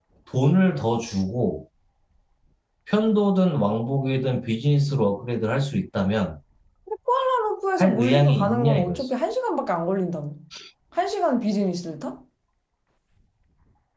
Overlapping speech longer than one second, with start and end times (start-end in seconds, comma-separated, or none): 7.8-9.0